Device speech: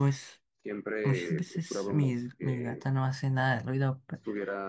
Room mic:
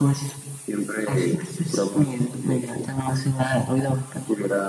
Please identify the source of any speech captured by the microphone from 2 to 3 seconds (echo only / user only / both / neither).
echo only